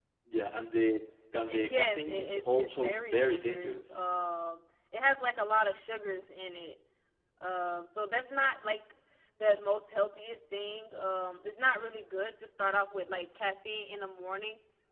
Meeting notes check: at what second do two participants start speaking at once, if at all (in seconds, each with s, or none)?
1.5 s